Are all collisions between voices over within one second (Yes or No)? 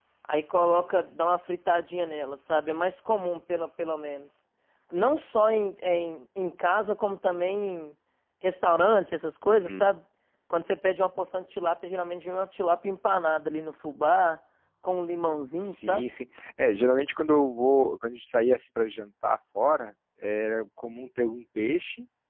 Yes